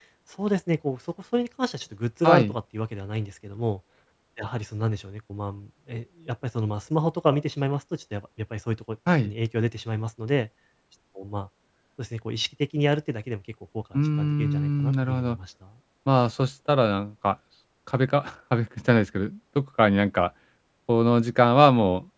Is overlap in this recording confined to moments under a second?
No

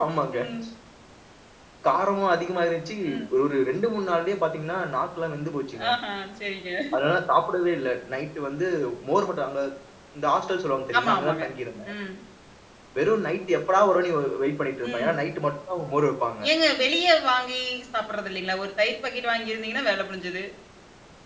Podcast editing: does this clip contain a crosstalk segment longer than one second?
No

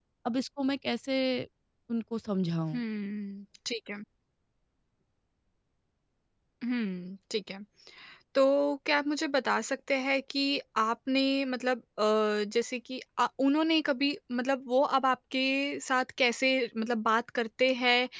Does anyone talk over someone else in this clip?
No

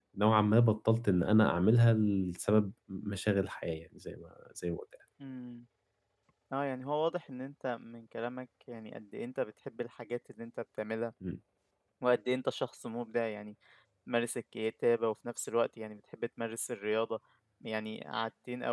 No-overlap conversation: Yes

